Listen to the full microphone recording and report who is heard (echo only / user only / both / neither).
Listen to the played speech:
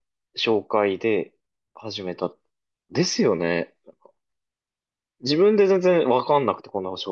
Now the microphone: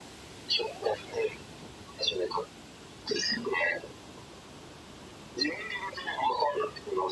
echo only